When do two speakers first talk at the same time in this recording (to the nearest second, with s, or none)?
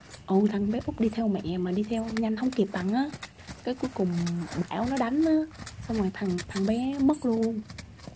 none